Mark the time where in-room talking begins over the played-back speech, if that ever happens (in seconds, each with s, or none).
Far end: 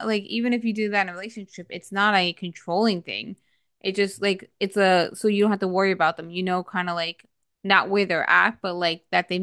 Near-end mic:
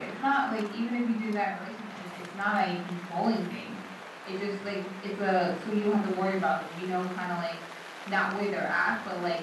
none